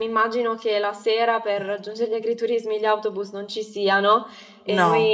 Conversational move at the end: listening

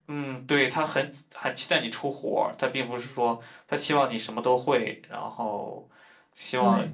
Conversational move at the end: listening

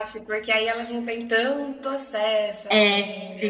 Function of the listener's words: taking over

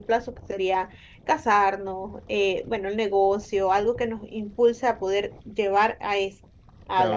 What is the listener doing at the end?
taking over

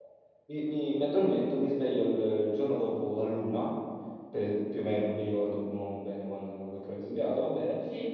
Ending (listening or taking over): listening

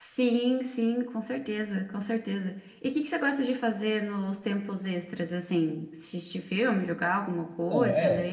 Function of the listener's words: taking over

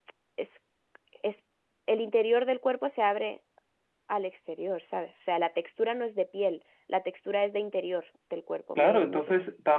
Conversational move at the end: taking over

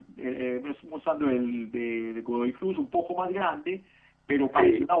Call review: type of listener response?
listening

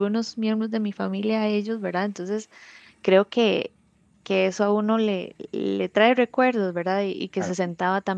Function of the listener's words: listening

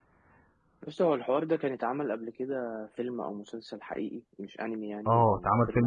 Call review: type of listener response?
taking over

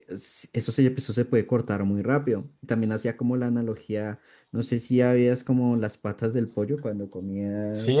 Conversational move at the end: taking over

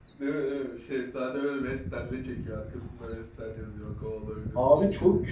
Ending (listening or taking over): taking over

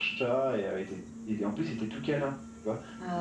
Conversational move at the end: listening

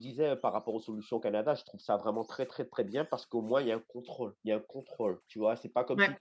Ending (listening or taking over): listening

